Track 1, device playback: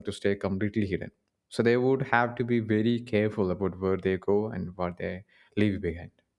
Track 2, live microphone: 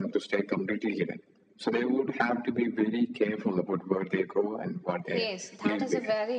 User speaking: Yes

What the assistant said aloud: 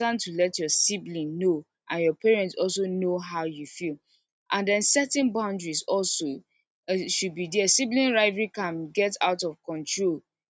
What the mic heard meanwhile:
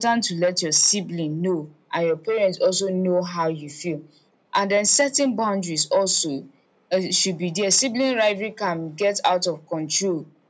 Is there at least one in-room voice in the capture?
No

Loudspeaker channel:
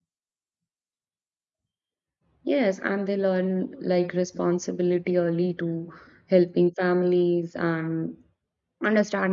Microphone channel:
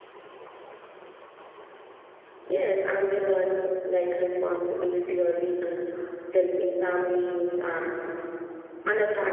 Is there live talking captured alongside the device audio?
No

